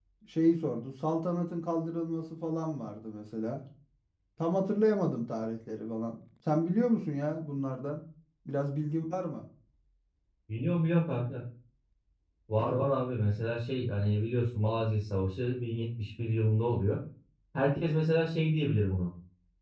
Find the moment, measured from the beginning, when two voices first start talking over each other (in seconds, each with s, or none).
none